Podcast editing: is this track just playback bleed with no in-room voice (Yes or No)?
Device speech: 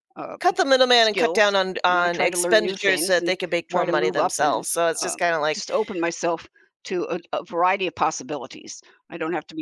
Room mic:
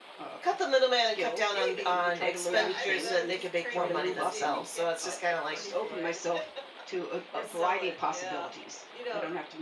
No